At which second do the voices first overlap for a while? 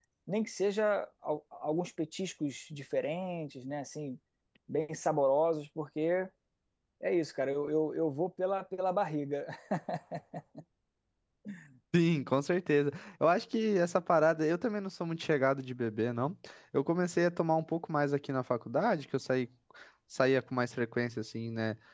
none

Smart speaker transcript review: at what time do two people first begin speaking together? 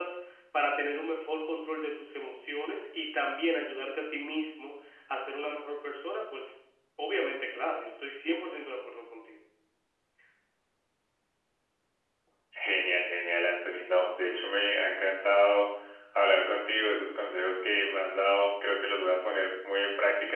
none

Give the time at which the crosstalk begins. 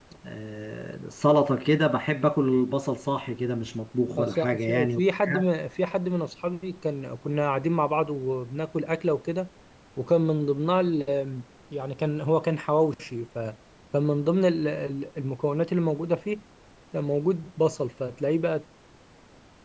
4.2 s

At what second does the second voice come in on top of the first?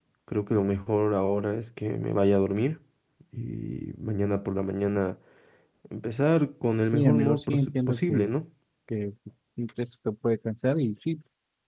6.9 s

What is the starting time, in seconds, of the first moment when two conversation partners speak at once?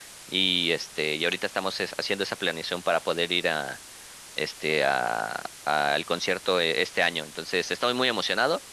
none

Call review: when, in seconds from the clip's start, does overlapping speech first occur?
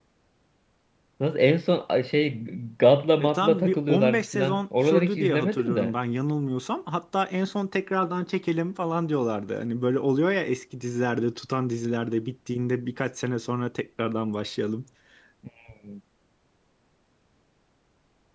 3.2 s

